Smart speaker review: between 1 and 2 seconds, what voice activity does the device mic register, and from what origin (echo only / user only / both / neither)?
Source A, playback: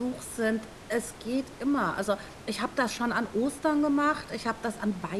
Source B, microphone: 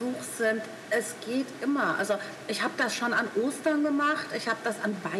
echo only